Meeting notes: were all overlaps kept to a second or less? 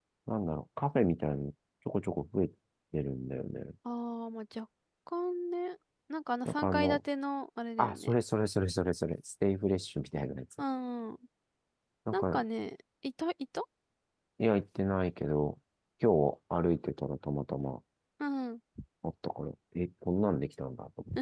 Yes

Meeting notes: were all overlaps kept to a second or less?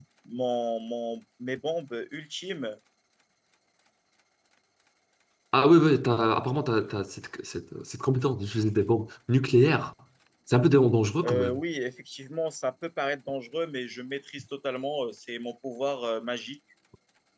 Yes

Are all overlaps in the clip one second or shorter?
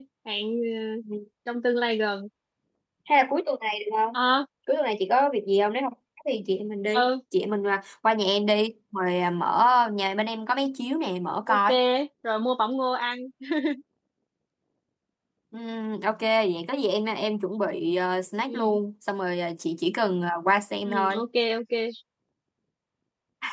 Yes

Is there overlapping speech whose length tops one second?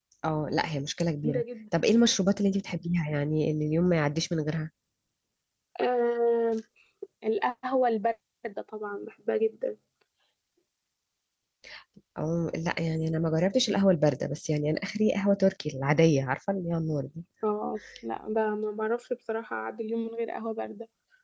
No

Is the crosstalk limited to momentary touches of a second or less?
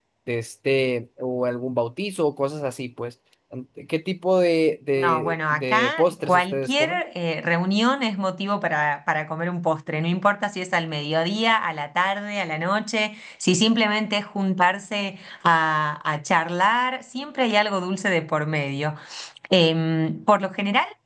No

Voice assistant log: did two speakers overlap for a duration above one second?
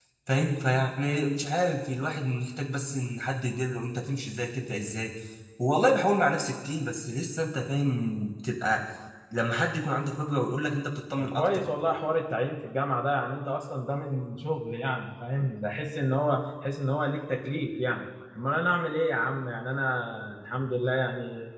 No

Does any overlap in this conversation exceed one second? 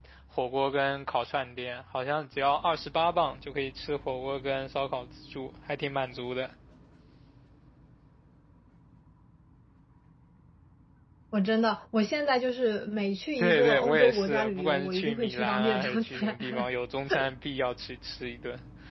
Yes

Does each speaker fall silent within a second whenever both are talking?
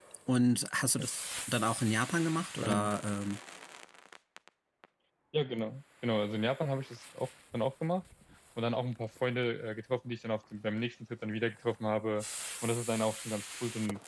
Yes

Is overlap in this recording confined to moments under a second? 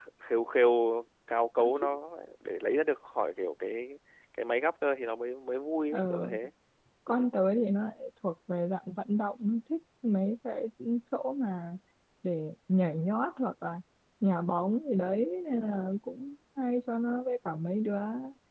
Yes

